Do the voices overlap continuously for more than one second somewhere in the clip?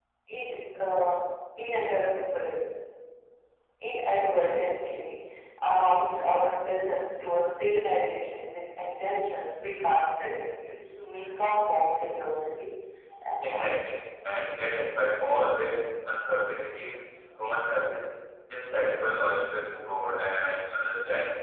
No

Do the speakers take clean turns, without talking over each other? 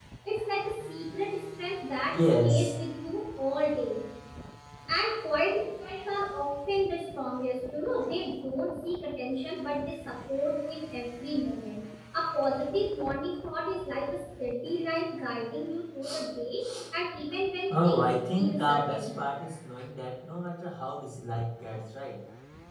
No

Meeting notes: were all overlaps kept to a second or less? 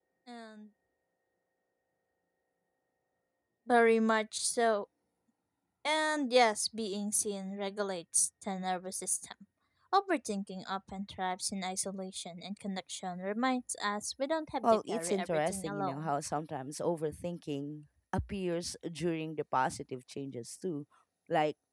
No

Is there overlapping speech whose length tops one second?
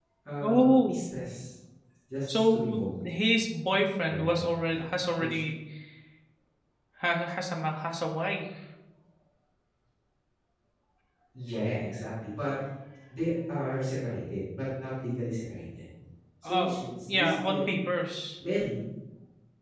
Yes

